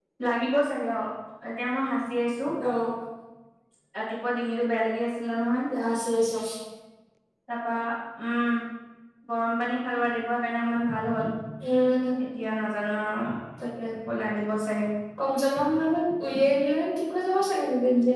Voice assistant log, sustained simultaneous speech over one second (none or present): none